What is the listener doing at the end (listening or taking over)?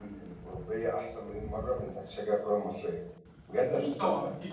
taking over